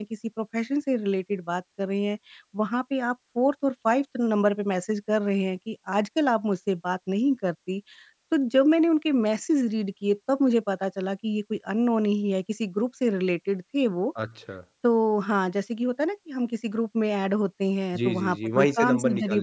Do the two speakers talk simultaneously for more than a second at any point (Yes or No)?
Yes